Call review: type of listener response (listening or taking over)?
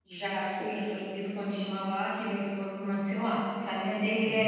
listening